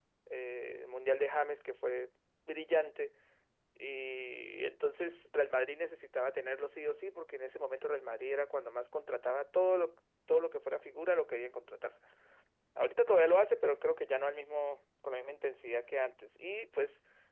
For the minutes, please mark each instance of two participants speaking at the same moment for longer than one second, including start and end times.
none

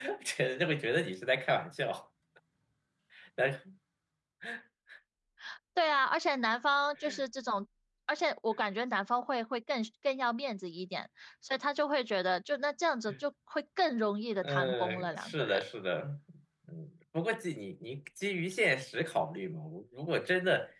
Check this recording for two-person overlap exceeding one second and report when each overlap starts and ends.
14.4-15.6

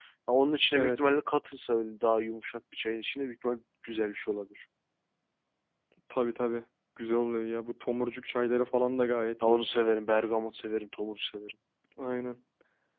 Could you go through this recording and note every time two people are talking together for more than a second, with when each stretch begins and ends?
none

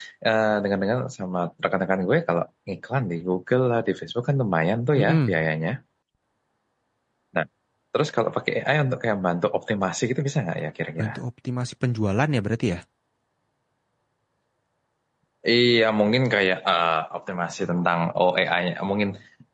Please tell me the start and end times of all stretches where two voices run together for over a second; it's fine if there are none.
none

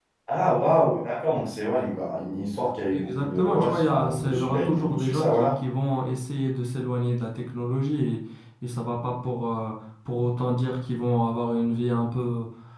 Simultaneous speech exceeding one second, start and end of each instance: 2.9-5.5

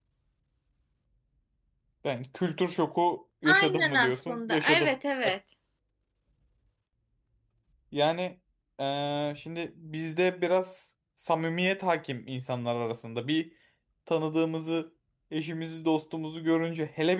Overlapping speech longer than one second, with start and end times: 3.4-4.9

